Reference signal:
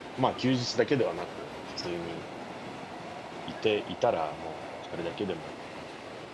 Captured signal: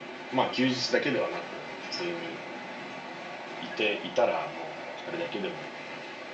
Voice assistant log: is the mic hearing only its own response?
Yes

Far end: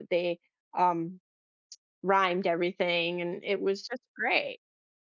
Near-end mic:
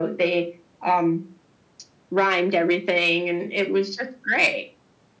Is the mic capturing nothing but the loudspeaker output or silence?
Yes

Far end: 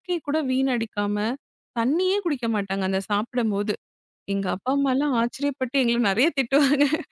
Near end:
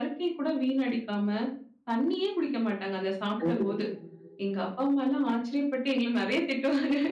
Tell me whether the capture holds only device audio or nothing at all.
No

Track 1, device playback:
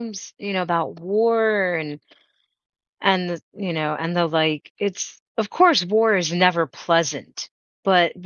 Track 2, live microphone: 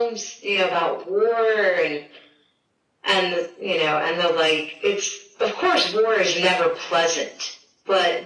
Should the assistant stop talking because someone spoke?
No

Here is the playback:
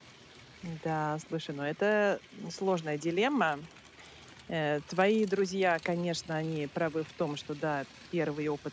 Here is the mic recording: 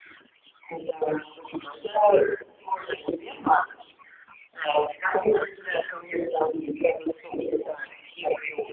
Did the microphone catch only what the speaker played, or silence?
Yes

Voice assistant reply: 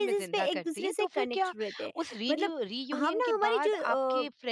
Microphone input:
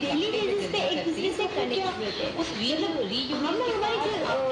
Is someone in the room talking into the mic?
No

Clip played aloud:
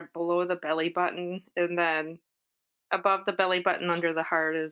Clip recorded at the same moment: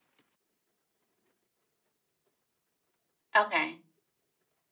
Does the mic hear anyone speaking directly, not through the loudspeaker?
Yes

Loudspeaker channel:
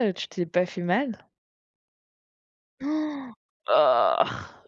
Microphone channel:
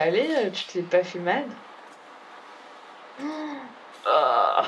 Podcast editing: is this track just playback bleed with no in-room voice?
Yes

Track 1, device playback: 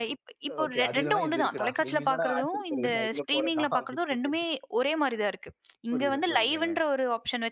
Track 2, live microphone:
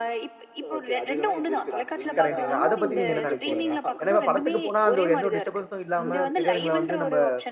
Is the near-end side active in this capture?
Yes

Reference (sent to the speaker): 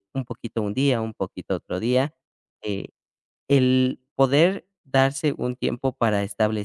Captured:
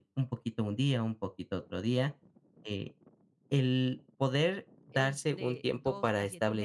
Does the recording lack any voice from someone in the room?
No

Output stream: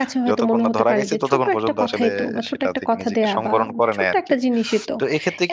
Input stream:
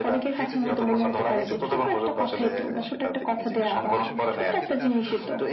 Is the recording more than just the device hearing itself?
Yes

